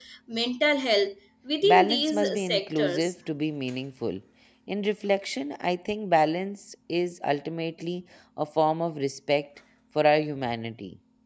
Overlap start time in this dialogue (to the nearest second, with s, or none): 2 s